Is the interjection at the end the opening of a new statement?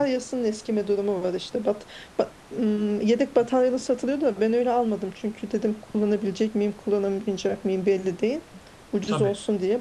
No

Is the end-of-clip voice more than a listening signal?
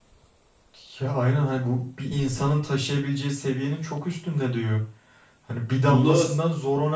No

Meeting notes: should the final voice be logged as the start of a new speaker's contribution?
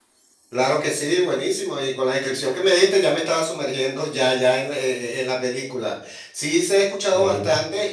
No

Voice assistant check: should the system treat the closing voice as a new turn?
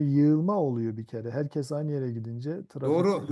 Yes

